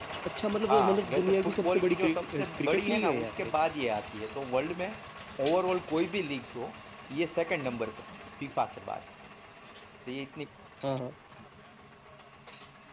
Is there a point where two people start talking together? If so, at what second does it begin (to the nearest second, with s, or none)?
1 s